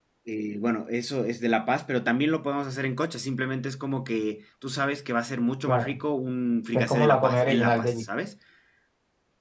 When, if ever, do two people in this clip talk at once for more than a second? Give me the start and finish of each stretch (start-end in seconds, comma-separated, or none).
6.7-8.1